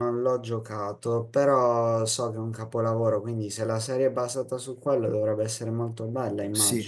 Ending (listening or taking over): taking over